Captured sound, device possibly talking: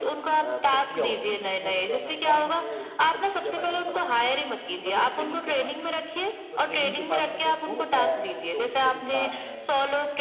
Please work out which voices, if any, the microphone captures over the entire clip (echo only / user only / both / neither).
both